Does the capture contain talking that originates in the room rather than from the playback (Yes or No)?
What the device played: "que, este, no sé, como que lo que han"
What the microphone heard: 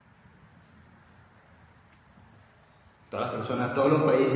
Yes